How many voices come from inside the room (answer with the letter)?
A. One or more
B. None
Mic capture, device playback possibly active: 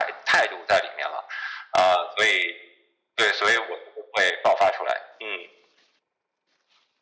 B